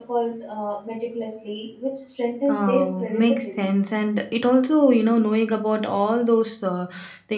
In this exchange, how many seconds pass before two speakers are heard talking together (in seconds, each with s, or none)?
2.5 s